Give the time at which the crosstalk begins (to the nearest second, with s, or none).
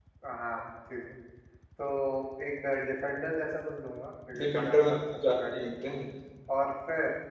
4 s